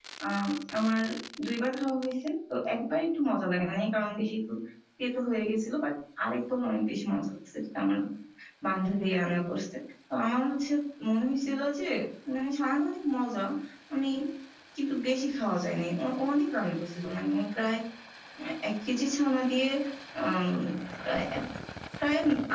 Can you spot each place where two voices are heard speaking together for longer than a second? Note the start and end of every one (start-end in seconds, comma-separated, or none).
none